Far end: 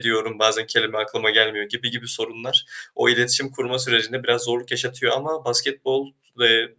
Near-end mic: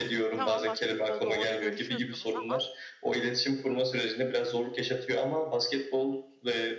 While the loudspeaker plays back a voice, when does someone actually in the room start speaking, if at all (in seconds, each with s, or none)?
0.3 s